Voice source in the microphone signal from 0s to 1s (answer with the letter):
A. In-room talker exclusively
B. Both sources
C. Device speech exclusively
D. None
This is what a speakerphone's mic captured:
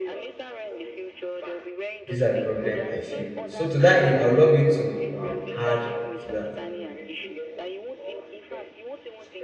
C